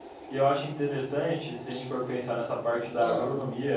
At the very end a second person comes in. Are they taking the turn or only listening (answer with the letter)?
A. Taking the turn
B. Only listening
B